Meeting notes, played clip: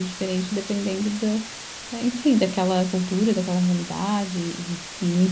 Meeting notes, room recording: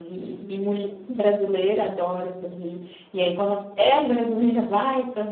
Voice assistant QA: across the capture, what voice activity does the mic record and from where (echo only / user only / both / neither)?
user only